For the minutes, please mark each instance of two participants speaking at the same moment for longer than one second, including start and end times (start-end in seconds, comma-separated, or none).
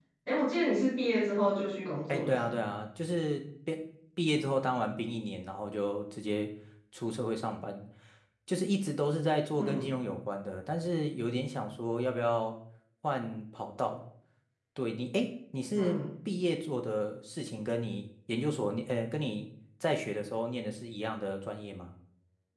none